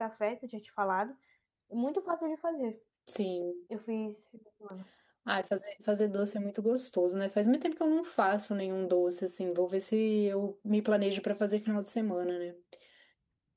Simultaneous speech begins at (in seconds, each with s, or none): none